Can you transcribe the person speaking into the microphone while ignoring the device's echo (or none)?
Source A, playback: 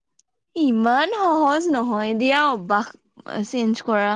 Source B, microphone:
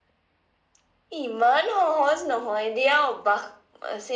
none